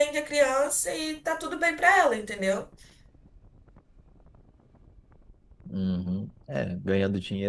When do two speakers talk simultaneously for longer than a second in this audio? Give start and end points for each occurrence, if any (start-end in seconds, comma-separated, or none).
none